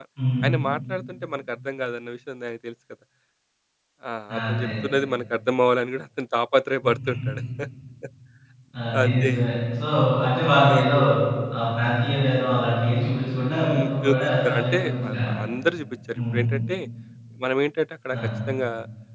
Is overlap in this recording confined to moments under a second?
No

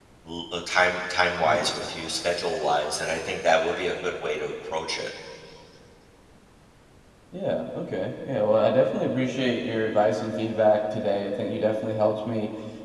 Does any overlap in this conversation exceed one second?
No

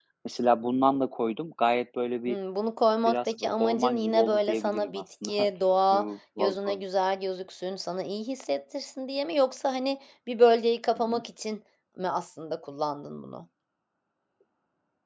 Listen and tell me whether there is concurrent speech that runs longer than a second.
Yes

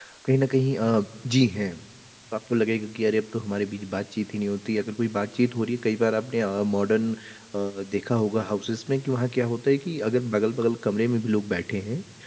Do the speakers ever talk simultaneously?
No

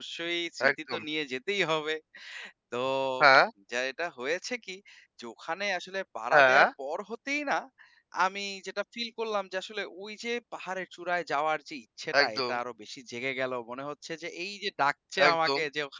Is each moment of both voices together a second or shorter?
Yes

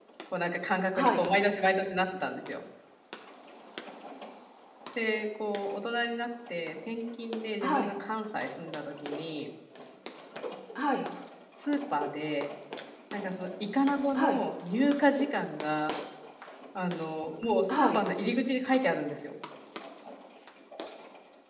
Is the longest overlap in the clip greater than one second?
No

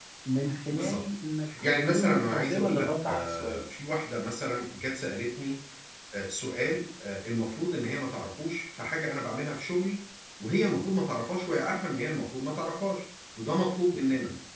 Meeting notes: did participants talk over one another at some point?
Yes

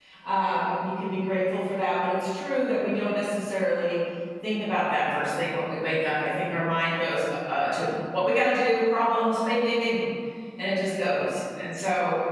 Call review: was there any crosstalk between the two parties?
No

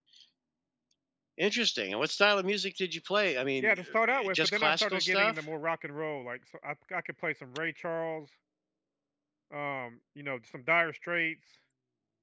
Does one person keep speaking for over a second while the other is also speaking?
Yes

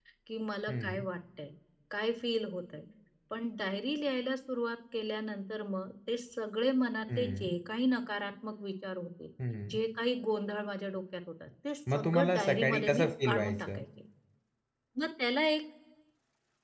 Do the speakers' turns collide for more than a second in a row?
Yes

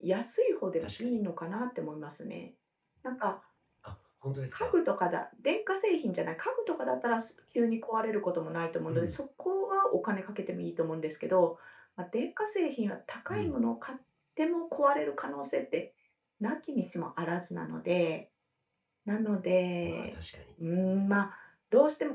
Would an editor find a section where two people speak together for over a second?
No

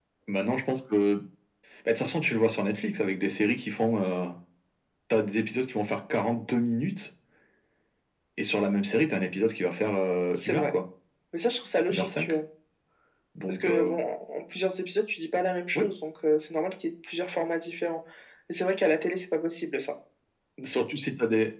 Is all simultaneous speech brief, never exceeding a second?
Yes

